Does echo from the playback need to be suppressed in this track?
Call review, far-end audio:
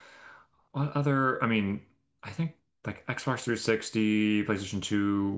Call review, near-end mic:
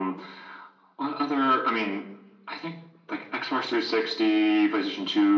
Yes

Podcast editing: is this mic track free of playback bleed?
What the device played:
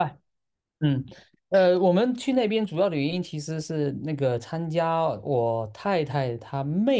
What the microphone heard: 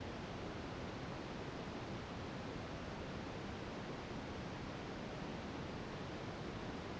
Yes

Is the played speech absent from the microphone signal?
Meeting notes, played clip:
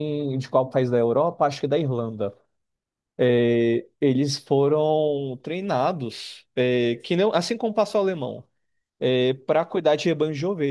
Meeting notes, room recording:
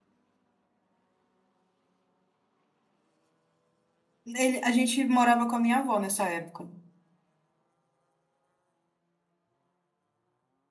Yes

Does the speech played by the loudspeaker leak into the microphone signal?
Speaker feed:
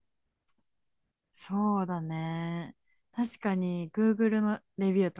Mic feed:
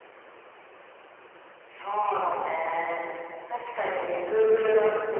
Yes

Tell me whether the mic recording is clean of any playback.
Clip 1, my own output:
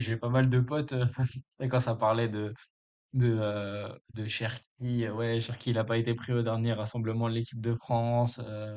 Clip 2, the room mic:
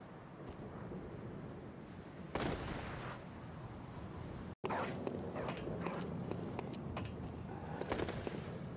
Yes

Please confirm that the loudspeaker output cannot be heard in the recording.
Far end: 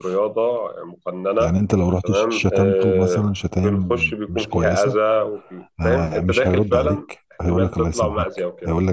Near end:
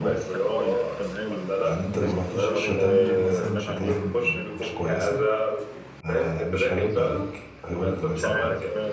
No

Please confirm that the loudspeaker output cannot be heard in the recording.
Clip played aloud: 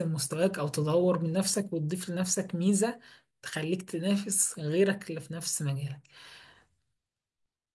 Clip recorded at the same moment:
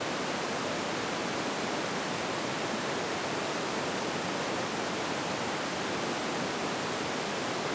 Yes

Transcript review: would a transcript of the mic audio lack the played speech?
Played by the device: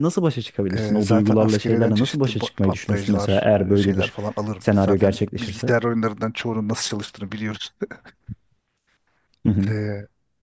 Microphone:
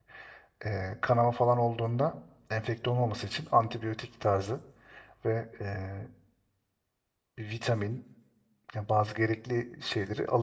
Yes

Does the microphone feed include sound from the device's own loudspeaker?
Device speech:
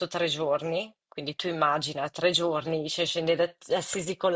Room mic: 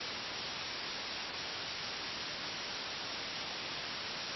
No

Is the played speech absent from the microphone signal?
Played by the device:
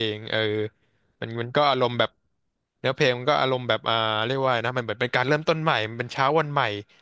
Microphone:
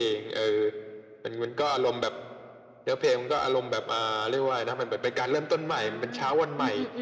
No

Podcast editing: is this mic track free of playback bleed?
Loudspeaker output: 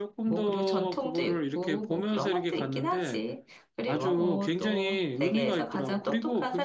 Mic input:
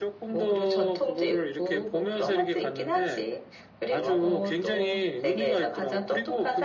No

